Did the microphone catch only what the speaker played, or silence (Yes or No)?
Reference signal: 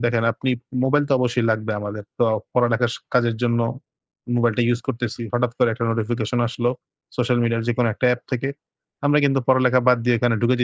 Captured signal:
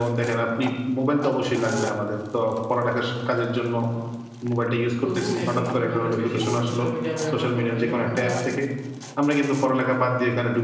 No